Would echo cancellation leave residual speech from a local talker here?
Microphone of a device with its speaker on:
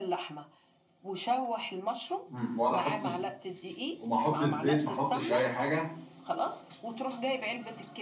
Yes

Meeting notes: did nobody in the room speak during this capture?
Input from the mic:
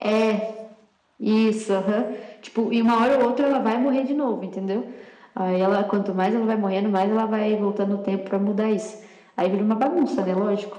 Yes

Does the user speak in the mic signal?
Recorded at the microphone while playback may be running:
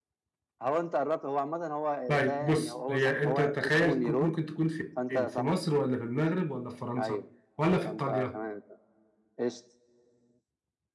Yes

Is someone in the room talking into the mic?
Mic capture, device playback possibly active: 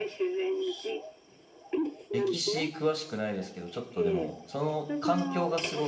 Yes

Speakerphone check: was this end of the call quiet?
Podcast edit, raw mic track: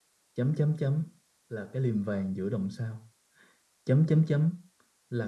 Yes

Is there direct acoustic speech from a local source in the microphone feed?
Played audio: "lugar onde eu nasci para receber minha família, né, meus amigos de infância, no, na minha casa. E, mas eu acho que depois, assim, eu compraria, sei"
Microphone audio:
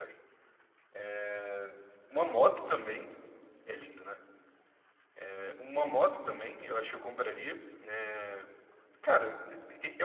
Yes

